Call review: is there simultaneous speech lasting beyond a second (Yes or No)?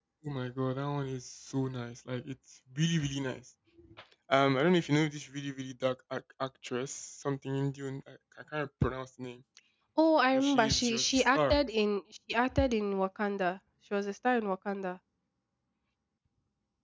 Yes